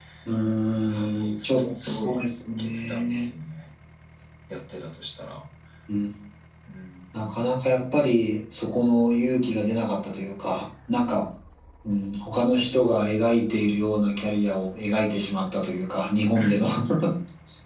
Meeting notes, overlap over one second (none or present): present